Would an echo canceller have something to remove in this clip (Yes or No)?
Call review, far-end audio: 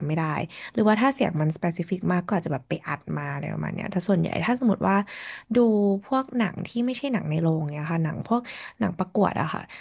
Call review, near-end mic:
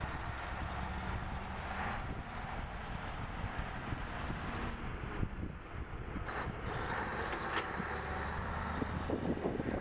No